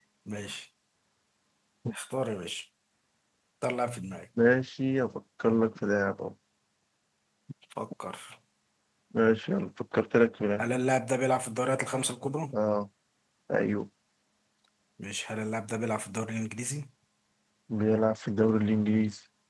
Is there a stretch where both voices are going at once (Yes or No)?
No